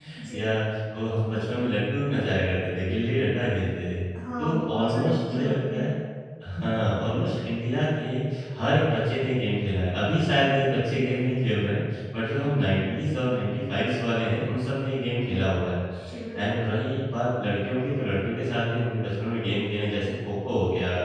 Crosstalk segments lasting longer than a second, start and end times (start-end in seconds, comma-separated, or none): 4.4-5.9